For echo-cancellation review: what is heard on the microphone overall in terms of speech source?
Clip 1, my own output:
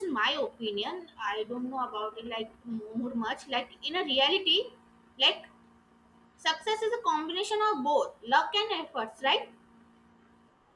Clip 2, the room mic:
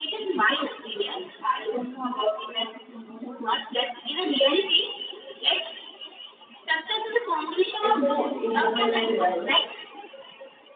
both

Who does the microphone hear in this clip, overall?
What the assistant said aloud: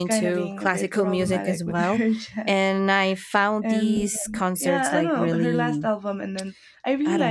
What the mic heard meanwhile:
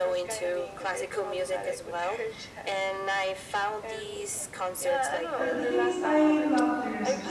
both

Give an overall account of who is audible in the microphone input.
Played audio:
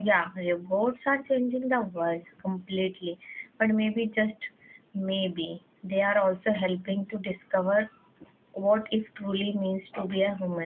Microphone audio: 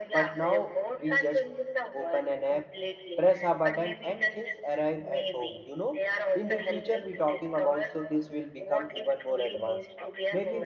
both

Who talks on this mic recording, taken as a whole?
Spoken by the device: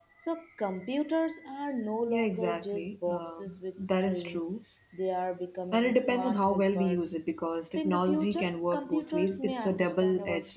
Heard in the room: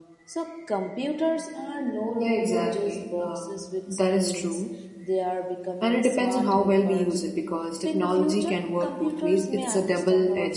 echo only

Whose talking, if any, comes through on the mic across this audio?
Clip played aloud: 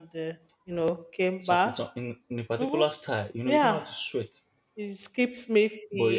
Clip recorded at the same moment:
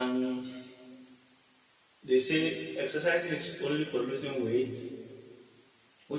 user only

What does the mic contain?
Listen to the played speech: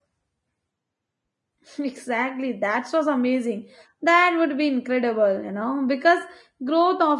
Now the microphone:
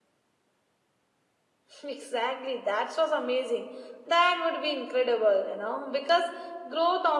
echo only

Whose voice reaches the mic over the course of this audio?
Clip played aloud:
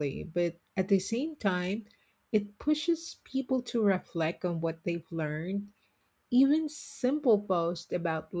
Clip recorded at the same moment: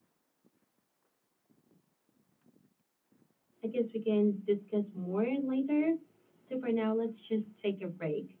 user only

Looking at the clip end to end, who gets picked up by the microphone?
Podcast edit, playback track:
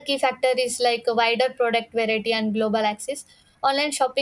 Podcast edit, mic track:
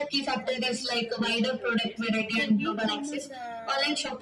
both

